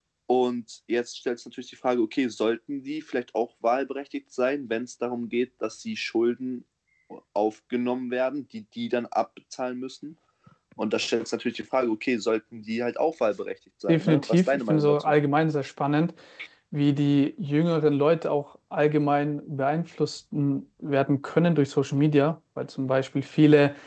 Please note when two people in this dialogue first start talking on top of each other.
13.9 s

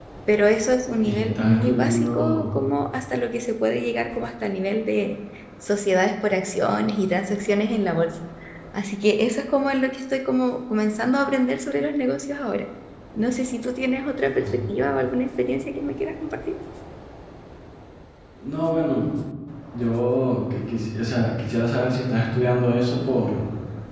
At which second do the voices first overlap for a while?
1.0 s

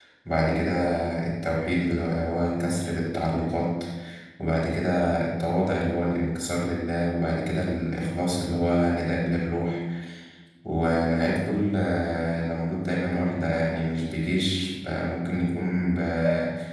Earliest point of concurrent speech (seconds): none

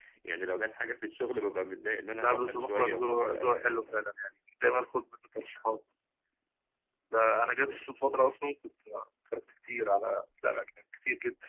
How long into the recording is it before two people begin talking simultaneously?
2.2 s

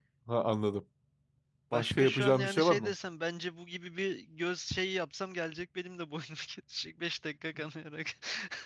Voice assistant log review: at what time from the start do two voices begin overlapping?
1.7 s

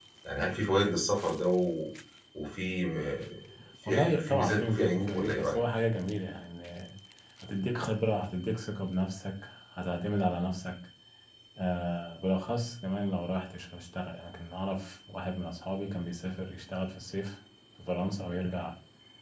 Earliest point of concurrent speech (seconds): 3.9 s

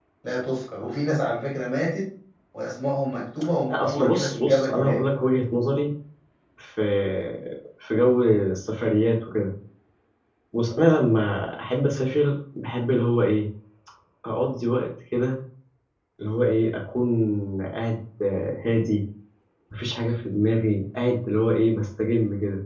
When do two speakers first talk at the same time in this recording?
3.7 s

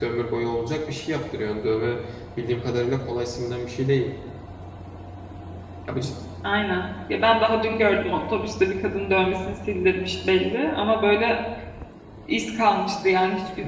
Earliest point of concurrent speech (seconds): none

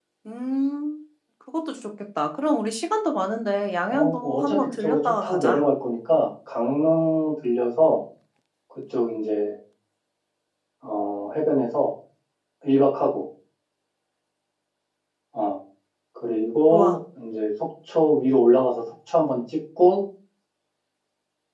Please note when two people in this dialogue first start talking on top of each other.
3.9 s

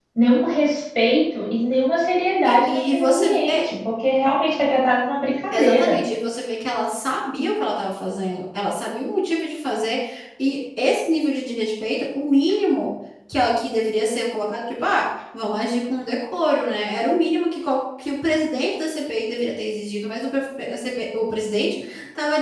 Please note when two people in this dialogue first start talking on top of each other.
2.4 s

